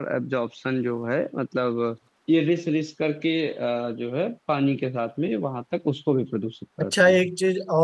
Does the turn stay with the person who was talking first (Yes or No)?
No